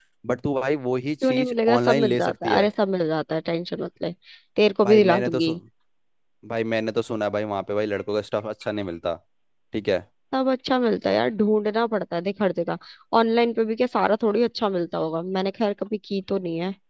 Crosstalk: present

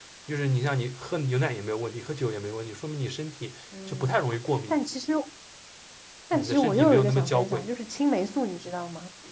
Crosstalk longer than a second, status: present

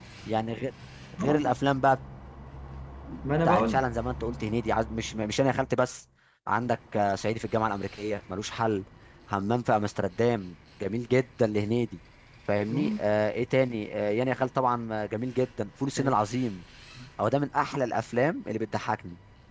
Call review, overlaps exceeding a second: none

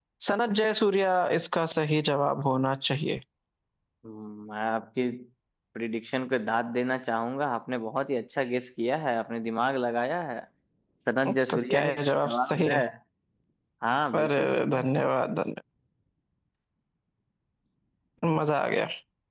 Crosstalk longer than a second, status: present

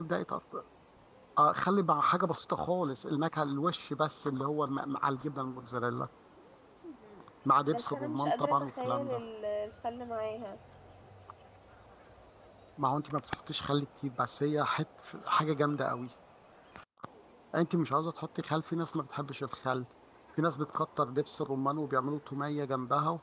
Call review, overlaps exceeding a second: present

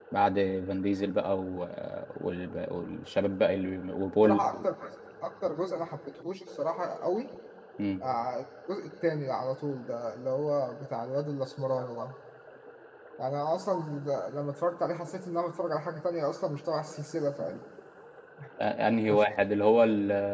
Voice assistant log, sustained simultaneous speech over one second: none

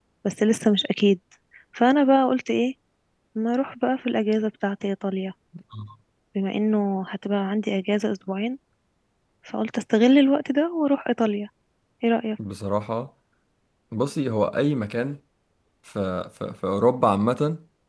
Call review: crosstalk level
none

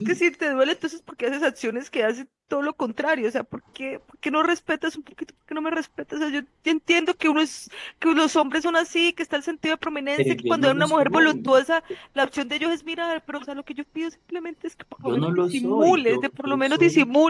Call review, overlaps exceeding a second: present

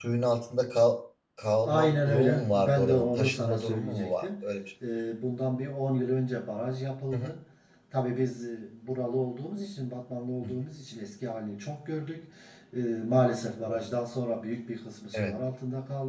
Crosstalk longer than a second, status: present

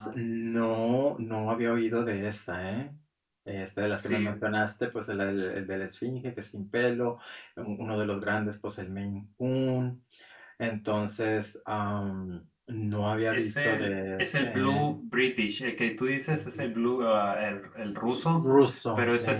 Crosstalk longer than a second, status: present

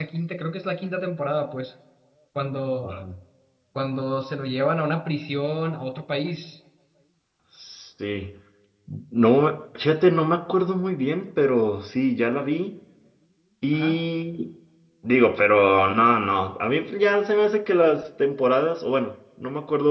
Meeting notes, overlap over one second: none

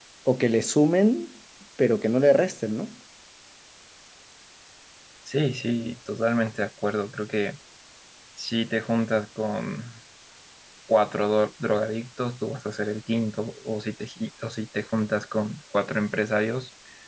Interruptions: none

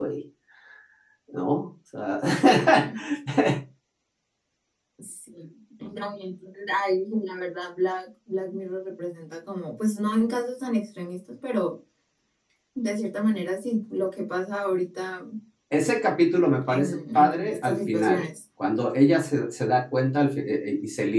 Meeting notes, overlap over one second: present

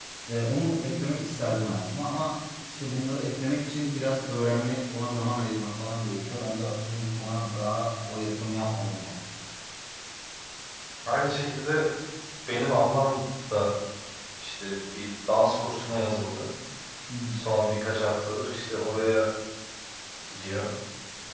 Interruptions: none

